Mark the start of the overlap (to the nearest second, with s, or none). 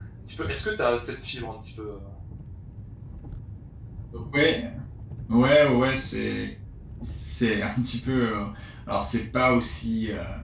none